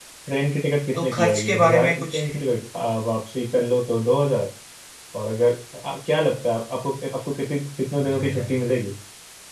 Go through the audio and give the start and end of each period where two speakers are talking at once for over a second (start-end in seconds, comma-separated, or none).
0.9-2.3